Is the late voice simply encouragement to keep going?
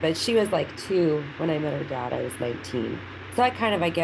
Yes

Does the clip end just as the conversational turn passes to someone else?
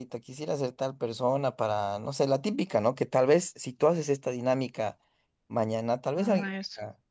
No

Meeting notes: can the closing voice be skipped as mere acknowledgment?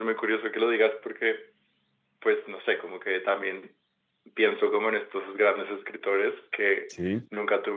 Yes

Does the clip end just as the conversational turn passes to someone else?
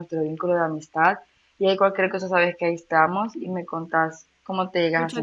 Yes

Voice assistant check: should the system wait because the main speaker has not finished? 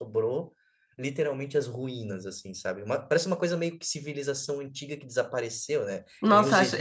No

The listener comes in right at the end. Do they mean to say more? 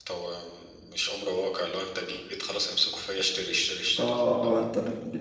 Yes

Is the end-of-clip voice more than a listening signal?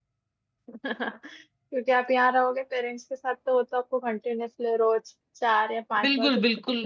Yes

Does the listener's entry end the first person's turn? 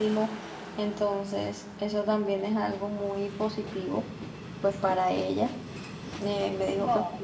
No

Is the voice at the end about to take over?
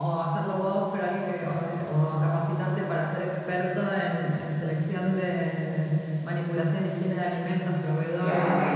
Yes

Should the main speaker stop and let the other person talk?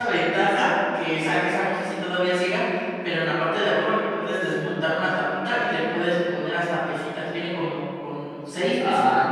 Yes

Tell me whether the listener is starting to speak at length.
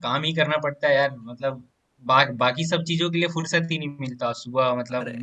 No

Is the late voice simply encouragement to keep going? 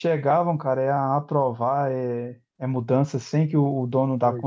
Yes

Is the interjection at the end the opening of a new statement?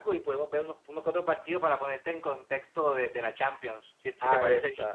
Yes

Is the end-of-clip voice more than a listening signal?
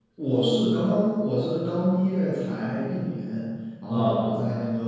No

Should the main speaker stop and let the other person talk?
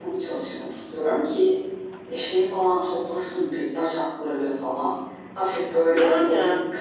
No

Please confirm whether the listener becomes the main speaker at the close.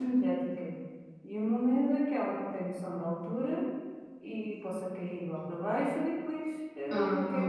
No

